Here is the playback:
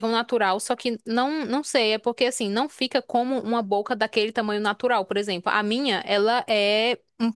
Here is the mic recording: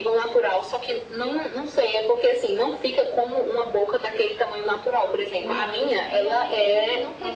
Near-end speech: present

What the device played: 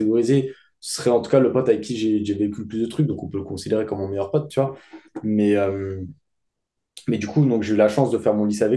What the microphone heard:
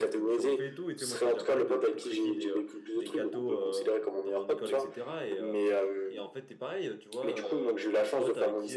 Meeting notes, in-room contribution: present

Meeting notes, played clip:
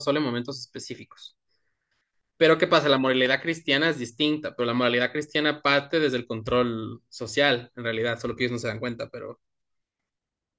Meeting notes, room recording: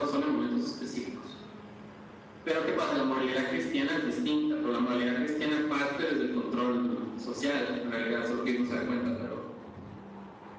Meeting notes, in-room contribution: none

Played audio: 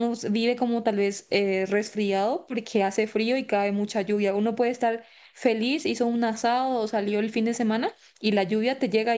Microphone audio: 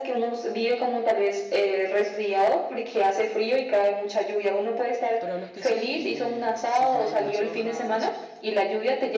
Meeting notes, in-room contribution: present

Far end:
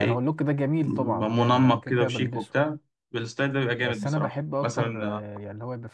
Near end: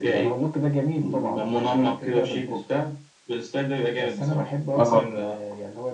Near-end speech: present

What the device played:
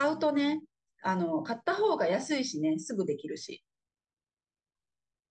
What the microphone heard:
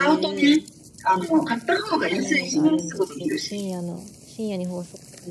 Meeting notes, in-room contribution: present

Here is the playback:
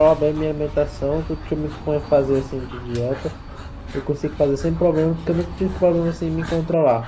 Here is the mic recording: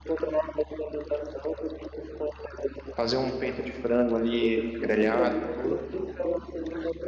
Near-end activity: present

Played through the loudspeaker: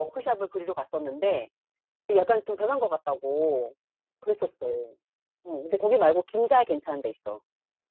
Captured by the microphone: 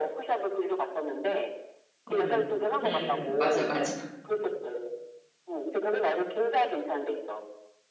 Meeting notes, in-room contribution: present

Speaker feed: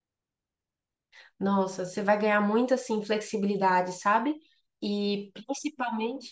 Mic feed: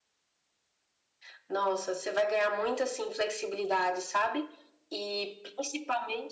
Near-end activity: none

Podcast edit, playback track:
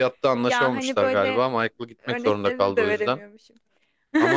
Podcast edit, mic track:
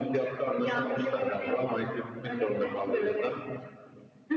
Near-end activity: none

